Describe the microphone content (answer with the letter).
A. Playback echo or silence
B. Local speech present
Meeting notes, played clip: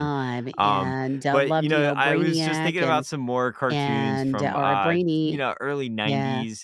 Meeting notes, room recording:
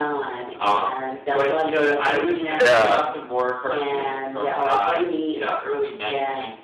B